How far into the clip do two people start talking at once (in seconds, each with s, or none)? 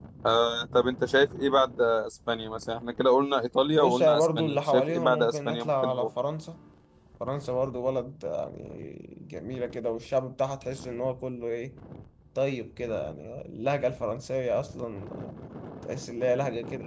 3.7 s